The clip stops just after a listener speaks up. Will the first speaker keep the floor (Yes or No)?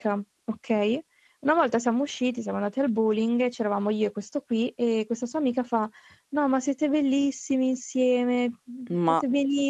Yes